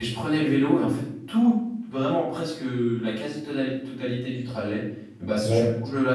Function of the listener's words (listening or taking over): listening